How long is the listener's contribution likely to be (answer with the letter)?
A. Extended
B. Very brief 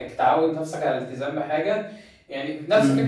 B